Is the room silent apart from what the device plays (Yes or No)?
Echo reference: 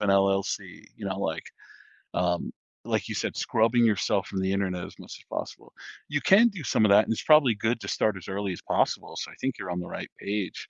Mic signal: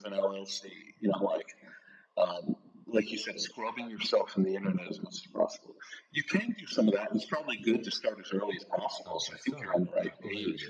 No